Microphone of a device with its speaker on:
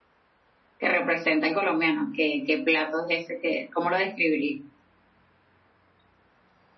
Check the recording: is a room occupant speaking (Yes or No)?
No